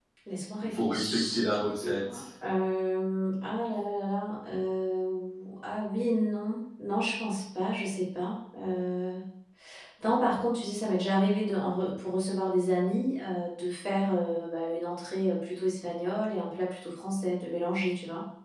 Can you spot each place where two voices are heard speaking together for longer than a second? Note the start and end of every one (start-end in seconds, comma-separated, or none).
0.6-2.2